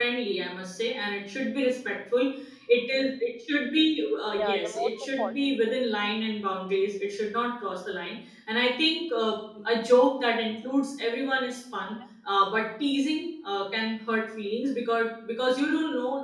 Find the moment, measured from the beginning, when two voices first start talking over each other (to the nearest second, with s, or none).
4 s